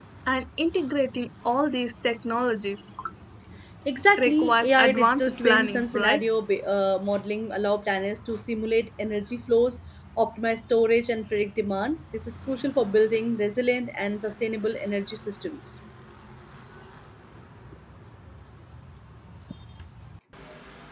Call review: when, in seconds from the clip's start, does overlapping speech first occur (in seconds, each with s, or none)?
4.2 s